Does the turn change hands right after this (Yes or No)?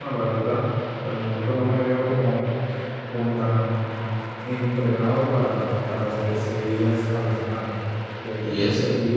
No